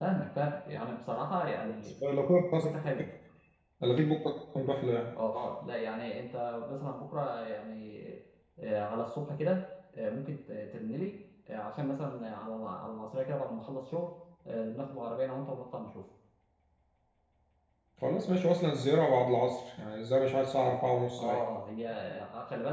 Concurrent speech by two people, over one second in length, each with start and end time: none

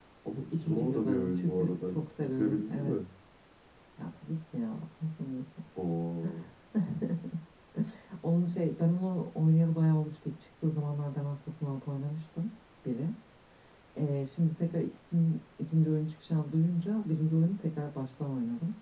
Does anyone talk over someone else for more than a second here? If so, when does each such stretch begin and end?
0.5-3.0

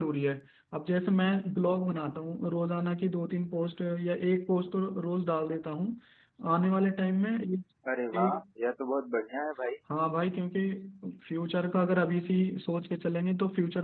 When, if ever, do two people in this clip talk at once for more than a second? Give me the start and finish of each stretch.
none

